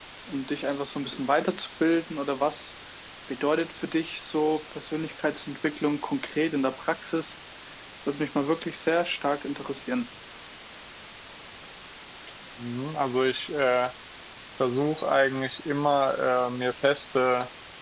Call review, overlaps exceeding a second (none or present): none